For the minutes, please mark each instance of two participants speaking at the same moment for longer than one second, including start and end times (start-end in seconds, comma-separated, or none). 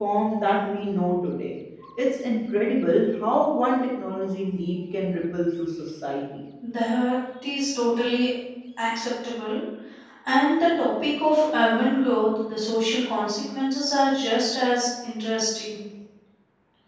none